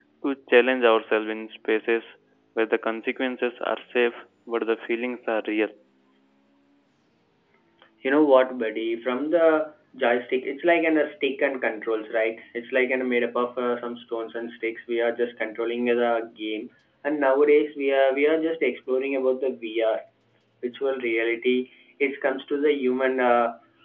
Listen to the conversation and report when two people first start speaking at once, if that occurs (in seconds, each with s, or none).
none